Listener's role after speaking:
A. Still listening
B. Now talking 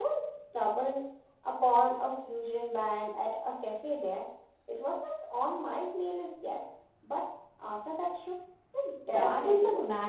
B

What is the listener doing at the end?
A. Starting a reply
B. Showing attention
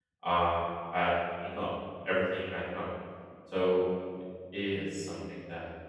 A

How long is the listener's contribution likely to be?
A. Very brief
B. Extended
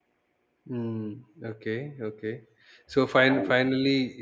A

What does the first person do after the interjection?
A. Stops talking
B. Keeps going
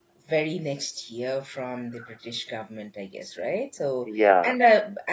B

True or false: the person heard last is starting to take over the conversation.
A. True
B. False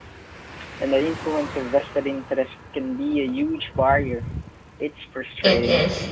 A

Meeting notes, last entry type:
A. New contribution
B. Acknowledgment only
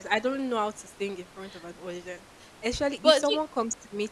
B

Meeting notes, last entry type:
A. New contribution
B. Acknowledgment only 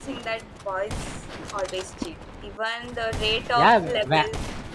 A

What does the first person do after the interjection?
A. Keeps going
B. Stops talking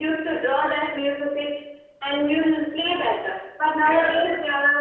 A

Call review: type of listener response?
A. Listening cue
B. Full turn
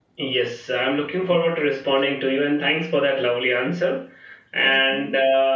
A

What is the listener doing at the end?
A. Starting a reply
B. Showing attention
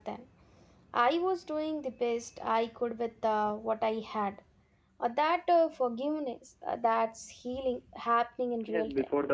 A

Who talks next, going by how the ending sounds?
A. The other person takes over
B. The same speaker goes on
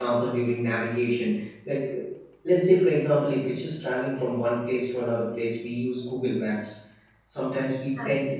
B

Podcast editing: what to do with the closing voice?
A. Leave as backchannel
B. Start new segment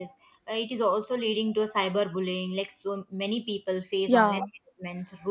A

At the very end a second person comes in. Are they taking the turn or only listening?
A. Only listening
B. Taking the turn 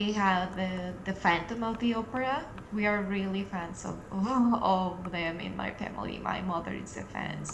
A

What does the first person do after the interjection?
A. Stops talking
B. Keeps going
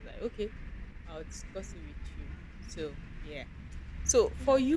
B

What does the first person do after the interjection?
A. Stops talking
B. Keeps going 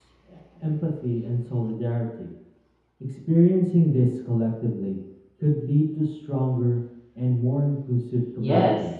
A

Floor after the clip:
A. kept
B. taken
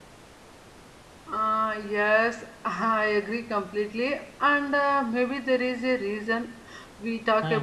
A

